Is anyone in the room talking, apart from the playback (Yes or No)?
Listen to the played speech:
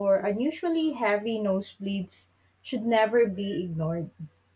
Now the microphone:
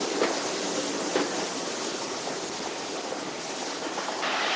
No